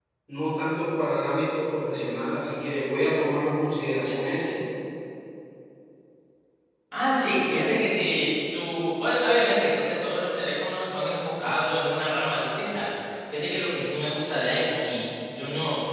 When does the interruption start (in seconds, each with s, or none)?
none